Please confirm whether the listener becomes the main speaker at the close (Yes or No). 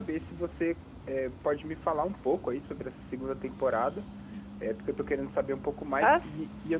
No